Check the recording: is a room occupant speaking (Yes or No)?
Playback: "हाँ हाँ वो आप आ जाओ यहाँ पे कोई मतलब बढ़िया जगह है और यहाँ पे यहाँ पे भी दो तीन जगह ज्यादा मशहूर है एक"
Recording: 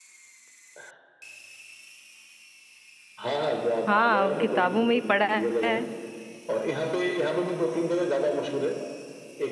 Yes